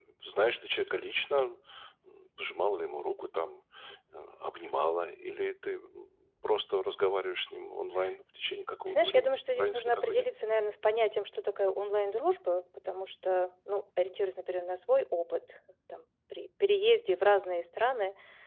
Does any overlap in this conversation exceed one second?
Yes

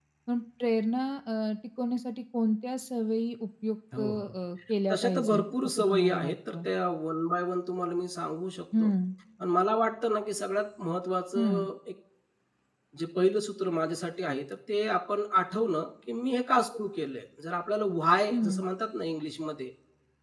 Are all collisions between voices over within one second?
No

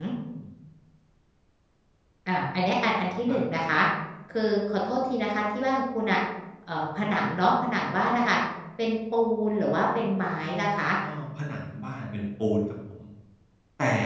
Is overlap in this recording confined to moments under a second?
Yes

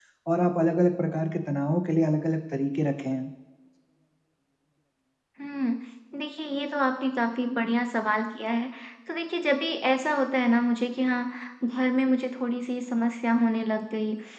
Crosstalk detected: No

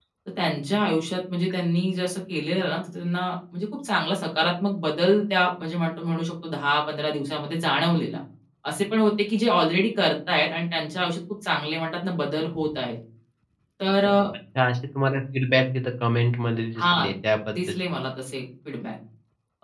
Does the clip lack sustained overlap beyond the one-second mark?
Yes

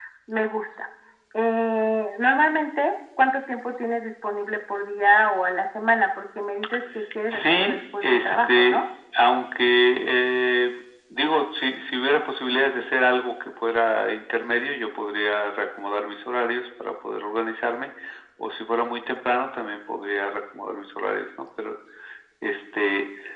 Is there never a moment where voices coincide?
No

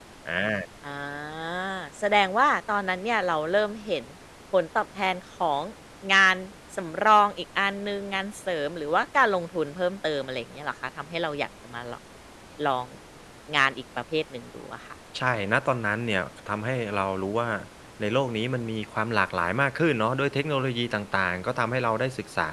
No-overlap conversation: Yes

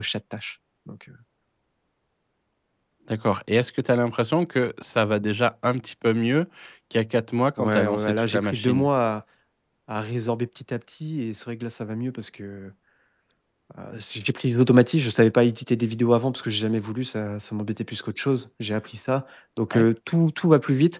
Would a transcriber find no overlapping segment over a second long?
No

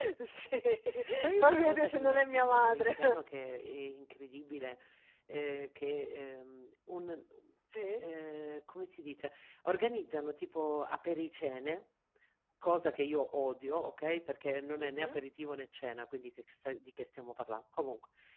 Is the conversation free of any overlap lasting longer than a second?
No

